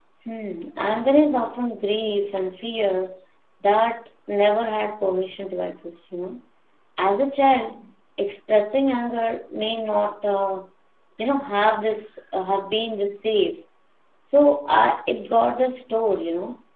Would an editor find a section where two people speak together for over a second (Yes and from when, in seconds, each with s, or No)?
No